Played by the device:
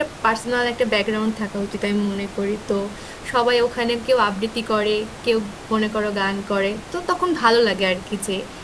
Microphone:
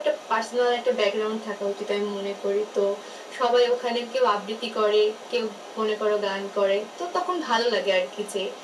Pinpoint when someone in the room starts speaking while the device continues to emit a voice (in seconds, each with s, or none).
none